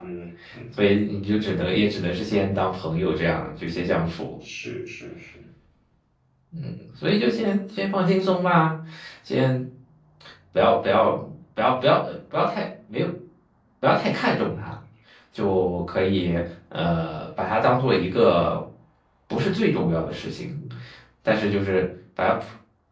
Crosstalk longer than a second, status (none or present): none